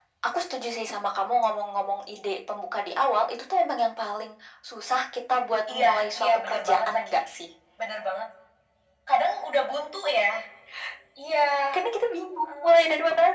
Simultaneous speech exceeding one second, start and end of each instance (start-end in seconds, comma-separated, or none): 5.7-7.1